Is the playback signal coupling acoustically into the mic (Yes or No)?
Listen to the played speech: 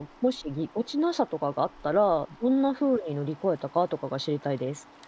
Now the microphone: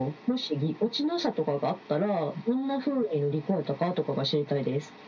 Yes